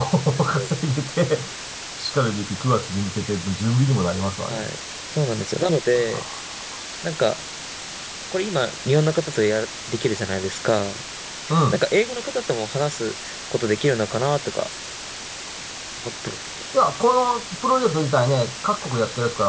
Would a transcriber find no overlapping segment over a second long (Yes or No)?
Yes